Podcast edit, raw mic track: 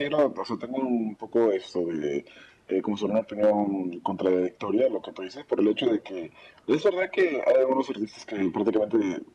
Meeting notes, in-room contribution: none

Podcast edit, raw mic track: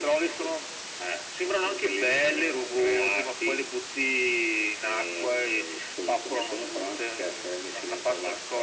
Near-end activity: none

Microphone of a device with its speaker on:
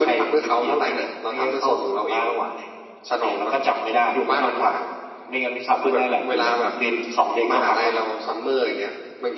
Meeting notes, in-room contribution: none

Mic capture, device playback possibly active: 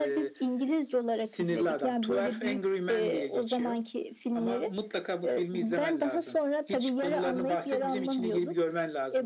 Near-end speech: none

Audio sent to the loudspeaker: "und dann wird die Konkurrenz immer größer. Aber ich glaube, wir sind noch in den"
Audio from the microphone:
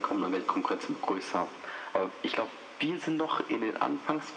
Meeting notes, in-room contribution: none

